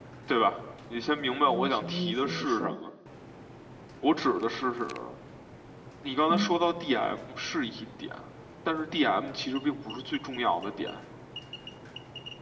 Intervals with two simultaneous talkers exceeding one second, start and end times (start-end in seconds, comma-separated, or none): 1.4-2.8